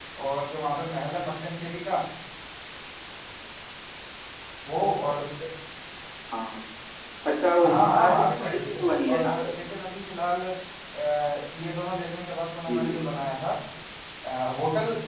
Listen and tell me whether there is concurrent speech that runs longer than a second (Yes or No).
Yes